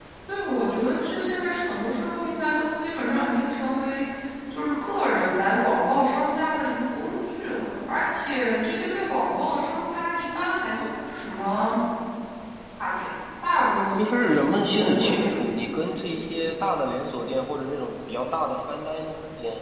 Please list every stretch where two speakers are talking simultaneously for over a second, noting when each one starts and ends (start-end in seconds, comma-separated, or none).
14.0-15.3